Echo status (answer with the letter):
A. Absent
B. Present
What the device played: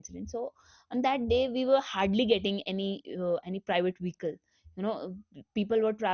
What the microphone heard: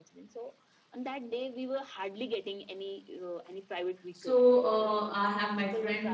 B